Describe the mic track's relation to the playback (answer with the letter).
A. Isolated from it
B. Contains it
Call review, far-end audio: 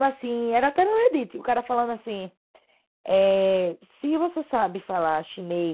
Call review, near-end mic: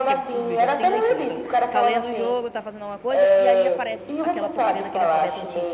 B